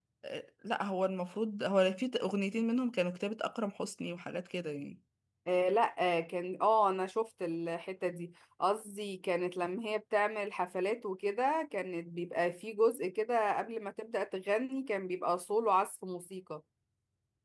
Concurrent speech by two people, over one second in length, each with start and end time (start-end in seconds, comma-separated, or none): none